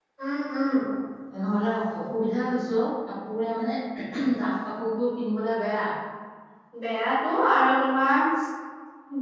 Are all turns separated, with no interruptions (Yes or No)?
Yes